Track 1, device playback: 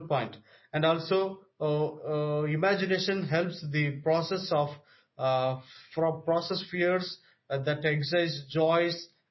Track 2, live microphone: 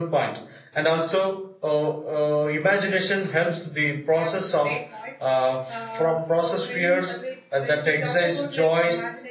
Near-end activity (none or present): present